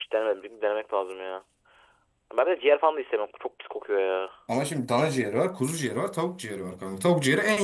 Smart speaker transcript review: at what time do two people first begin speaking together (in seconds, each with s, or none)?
none